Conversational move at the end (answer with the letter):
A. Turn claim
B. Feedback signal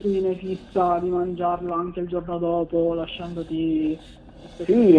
A